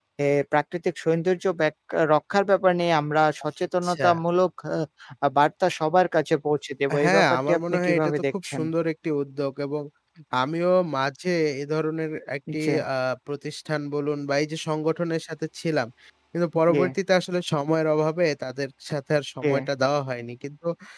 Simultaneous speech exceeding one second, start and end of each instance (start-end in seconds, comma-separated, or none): 7.0-8.6